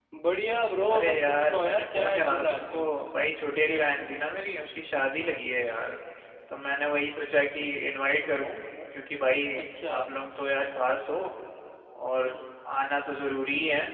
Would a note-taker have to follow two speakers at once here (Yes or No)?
Yes